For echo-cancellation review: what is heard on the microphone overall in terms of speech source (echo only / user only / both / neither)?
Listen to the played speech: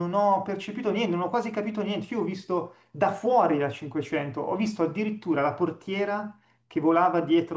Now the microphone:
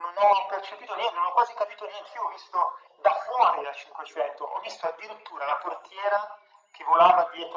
echo only